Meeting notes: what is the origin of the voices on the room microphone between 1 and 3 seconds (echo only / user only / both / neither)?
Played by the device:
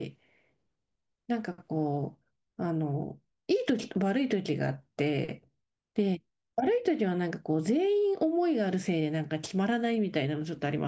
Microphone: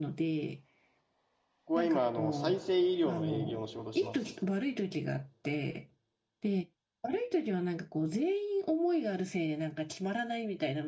both